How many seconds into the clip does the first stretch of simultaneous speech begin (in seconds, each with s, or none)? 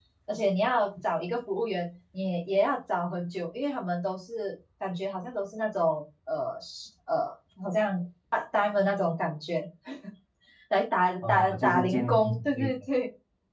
11.3 s